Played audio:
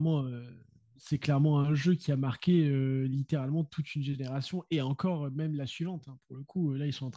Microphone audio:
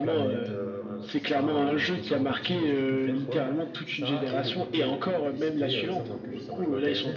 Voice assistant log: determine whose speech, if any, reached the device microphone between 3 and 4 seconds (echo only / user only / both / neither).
both